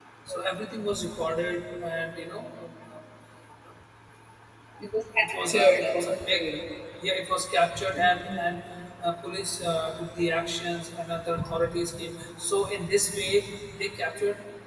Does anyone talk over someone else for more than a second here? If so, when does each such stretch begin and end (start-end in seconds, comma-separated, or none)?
5.2-6.4